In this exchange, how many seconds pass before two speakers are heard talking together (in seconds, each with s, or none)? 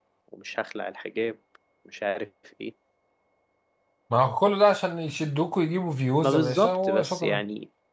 6.2 s